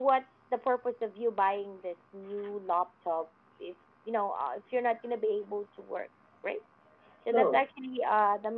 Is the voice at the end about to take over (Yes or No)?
No